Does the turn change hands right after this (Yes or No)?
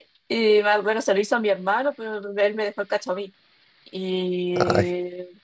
No